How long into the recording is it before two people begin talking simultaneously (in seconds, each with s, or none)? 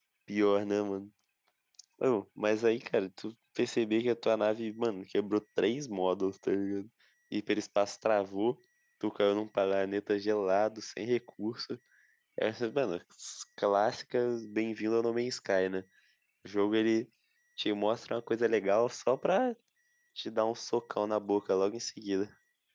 none